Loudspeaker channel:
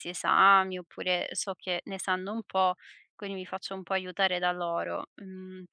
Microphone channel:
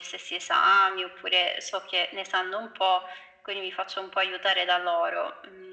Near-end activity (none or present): none